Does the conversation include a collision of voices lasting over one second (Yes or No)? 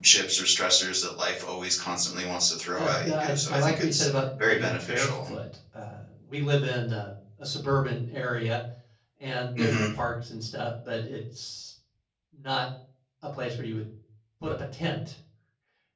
Yes